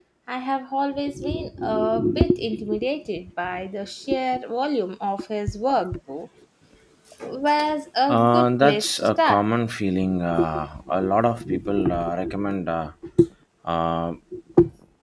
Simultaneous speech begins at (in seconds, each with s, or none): 8.1 s